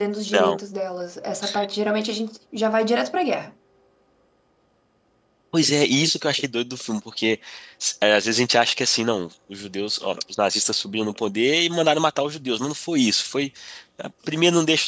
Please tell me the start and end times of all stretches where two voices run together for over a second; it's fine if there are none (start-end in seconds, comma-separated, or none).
none